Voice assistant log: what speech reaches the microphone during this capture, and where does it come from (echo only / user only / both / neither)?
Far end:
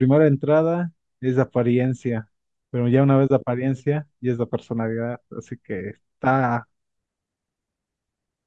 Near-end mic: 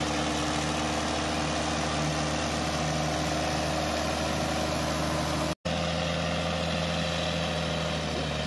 neither